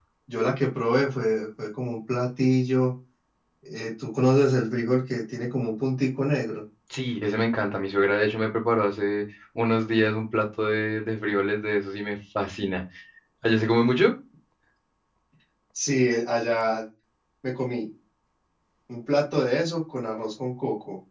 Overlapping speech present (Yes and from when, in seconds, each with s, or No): No